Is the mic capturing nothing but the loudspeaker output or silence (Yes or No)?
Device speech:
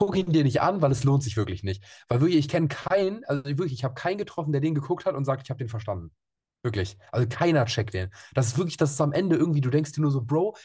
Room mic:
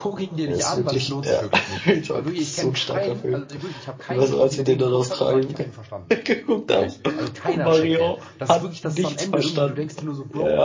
No